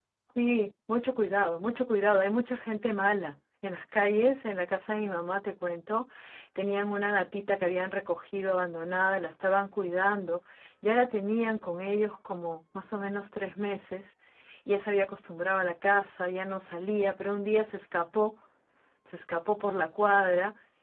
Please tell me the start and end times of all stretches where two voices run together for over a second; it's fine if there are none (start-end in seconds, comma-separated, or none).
none